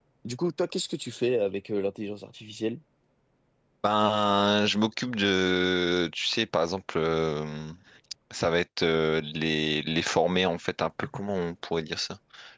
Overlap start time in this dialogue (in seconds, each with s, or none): none